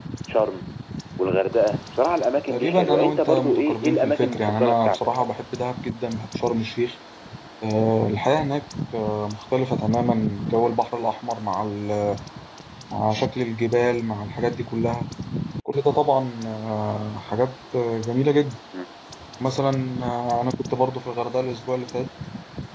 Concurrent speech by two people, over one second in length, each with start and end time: 2.5-5.3

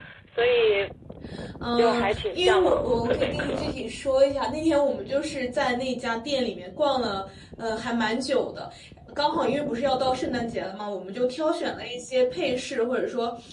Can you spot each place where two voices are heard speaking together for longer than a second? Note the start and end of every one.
1.8-3.7

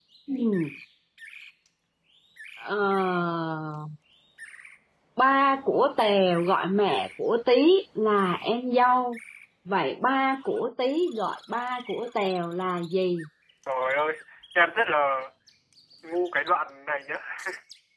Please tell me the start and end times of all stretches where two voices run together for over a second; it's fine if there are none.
none

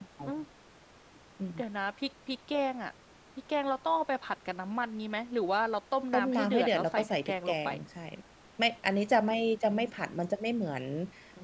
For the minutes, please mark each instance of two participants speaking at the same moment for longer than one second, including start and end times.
6.1-7.7

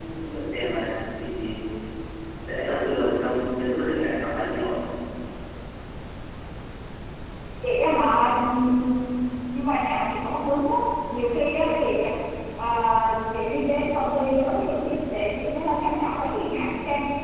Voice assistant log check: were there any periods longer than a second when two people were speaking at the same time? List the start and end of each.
none

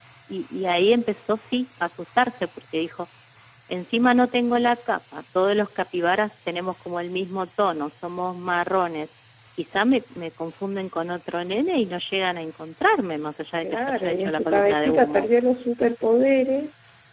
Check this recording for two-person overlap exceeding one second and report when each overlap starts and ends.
13.6-15.3

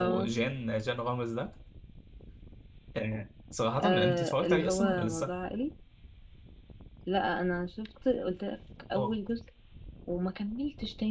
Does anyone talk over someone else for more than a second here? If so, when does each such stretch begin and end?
3.8-5.3

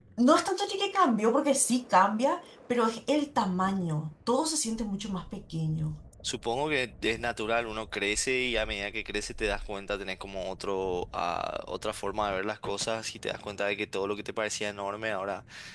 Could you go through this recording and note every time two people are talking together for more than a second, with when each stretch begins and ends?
none

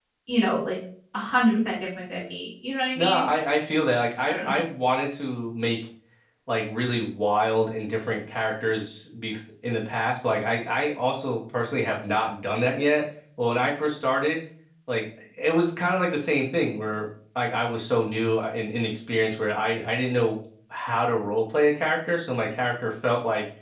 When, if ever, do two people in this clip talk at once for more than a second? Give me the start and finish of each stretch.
none

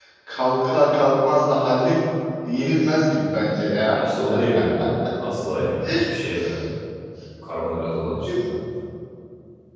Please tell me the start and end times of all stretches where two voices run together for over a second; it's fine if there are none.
none

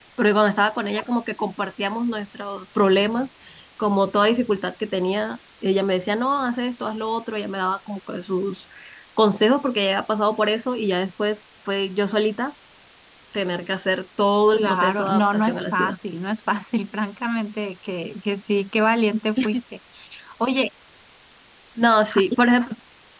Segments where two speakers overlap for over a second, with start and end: 14.5-16.0

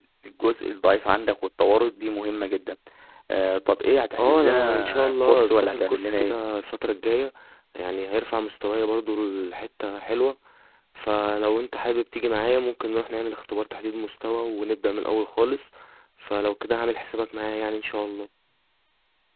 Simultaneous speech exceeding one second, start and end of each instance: 4.2-6.4

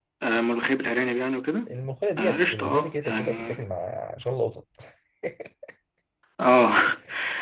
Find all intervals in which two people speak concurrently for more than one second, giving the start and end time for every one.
2.2-3.6

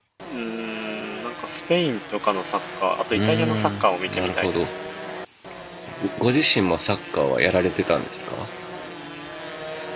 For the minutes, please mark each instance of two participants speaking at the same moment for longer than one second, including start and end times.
3.1-4.7

